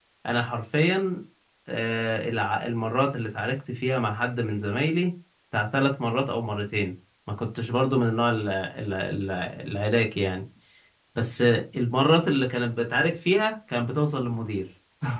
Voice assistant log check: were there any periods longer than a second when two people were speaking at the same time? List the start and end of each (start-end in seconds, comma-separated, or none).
none